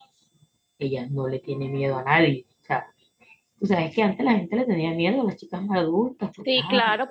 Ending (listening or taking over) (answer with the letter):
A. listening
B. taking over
B